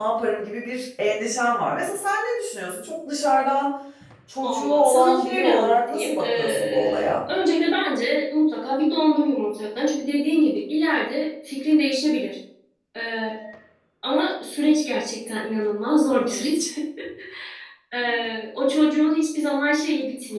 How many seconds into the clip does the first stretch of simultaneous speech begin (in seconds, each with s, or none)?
4.4 s